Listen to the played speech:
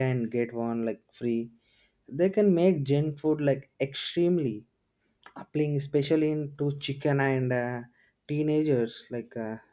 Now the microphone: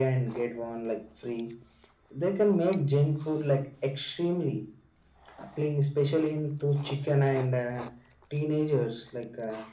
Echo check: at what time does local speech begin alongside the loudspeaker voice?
none

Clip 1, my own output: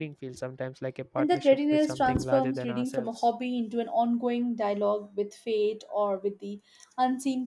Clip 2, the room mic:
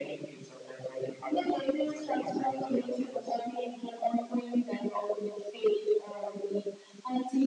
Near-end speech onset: none

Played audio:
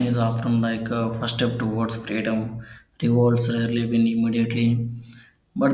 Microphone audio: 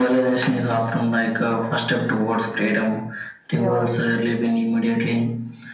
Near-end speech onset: 3.5 s

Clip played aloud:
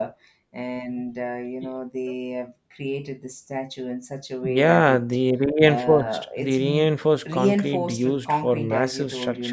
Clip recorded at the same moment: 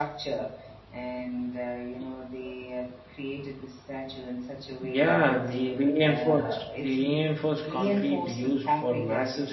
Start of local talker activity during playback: none

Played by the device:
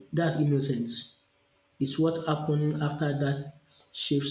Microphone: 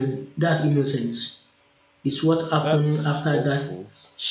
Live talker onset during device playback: 2.5 s

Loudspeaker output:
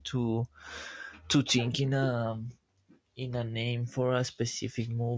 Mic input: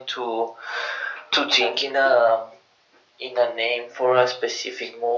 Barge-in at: none

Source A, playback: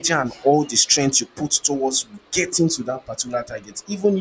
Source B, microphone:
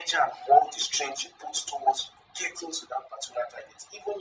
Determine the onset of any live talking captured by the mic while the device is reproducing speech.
none

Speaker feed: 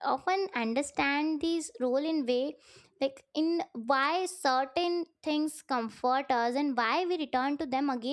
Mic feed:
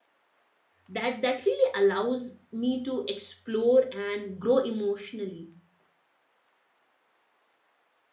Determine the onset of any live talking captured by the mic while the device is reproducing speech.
0.9 s

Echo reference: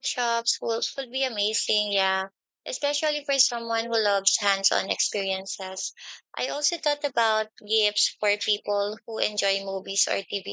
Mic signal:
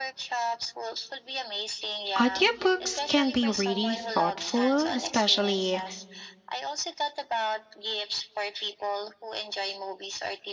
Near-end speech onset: 2.2 s

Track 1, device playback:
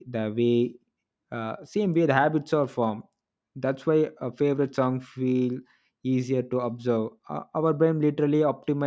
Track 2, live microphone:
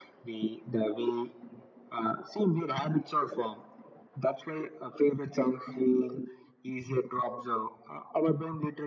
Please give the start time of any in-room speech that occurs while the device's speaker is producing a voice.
none

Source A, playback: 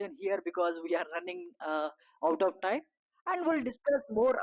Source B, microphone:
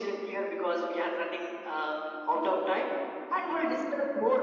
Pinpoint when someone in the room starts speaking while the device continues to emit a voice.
none

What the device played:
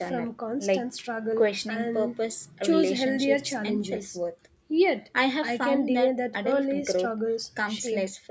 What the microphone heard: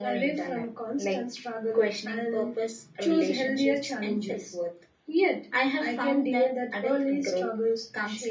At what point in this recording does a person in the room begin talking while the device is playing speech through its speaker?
none

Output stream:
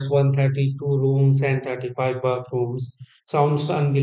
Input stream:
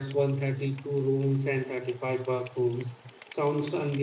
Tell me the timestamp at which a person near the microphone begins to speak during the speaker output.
none

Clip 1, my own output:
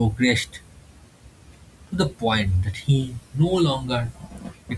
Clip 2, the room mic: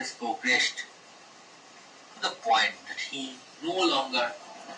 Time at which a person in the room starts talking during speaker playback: none

